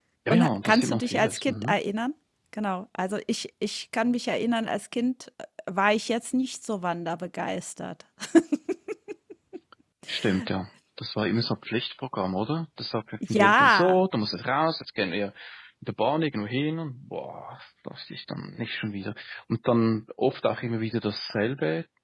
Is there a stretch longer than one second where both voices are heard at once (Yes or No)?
Yes